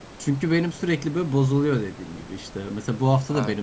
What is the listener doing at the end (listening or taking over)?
listening